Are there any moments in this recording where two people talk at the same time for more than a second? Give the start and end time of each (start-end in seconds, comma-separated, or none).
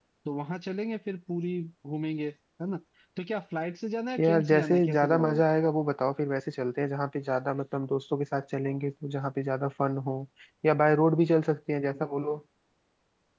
4.2-5.4